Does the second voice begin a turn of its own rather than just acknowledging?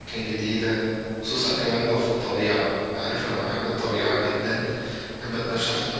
No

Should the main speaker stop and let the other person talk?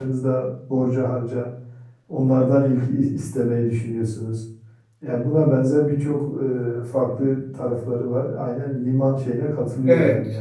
Yes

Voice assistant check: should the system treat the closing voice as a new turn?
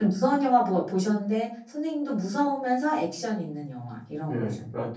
Yes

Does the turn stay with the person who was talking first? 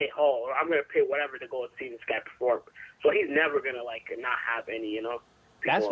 No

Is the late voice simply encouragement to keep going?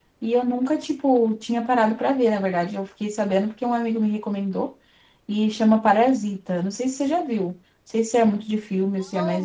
No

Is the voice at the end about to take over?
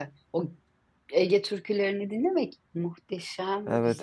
Yes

